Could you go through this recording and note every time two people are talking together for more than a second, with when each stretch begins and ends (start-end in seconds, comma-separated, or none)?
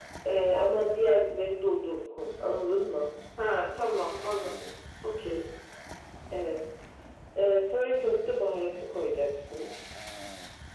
none